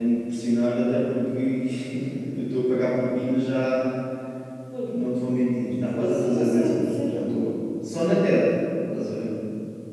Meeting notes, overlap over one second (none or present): present